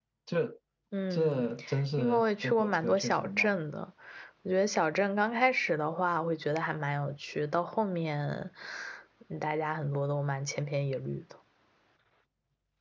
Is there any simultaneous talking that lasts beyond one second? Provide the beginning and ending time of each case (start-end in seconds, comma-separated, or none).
2.0-3.6